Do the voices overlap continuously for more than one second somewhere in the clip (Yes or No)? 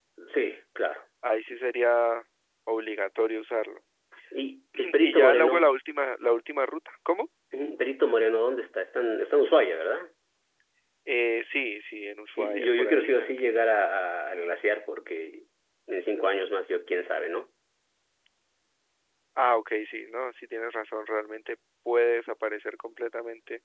Yes